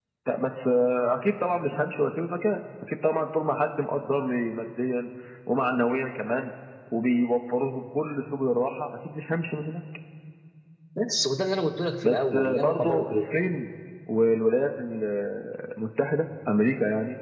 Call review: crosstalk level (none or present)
present